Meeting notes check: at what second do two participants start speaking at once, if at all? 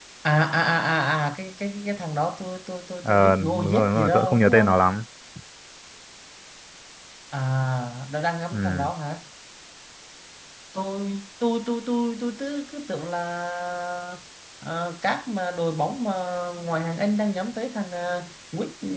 3.0 s

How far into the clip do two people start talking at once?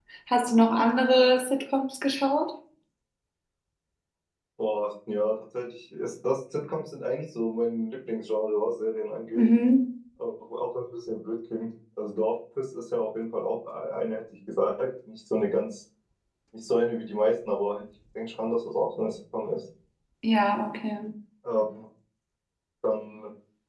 none

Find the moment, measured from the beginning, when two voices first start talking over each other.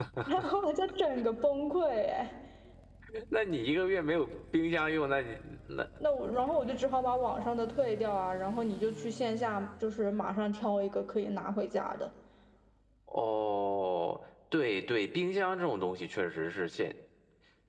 none

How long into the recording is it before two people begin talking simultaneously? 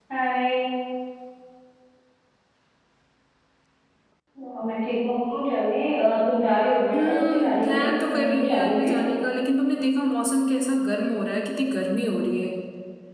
6.9 s

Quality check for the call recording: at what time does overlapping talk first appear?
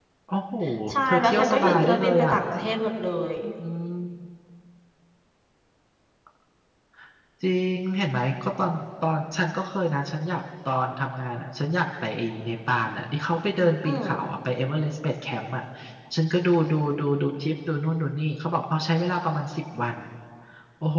1.1 s

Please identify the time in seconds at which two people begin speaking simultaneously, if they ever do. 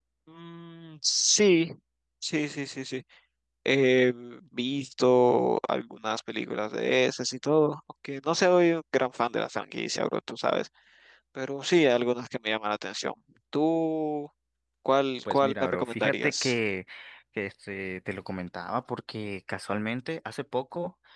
15.3 s

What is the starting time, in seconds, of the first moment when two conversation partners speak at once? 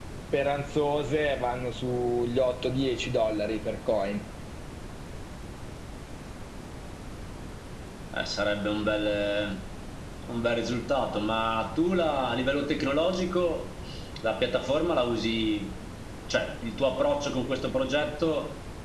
none

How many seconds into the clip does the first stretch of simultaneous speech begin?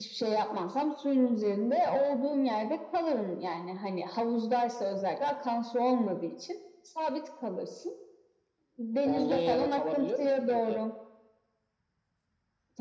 9.1 s

